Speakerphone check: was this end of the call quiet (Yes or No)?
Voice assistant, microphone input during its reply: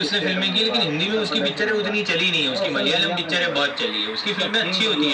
Yes